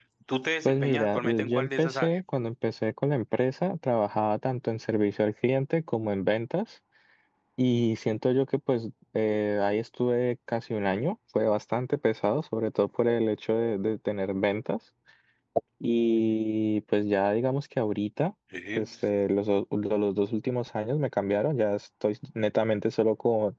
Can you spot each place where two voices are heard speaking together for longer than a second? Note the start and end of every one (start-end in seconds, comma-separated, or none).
0.6-2.2